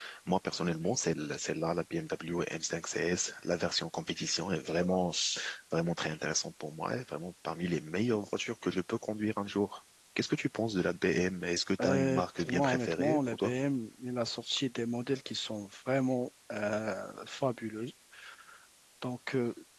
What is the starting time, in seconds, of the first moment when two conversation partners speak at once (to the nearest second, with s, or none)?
12 s